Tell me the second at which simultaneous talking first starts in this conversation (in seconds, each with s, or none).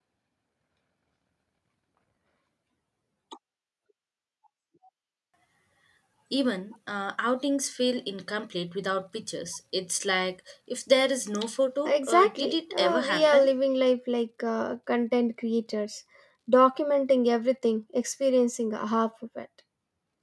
11.8 s